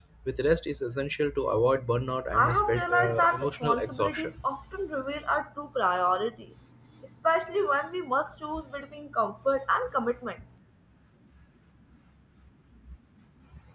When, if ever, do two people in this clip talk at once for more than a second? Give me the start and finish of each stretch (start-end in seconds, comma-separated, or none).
2.3-4.3